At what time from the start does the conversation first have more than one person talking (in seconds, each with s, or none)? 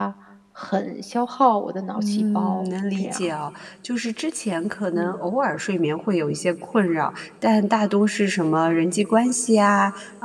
2.0 s